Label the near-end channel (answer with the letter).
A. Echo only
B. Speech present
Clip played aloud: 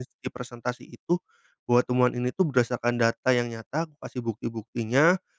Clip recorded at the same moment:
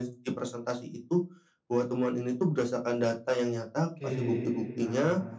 B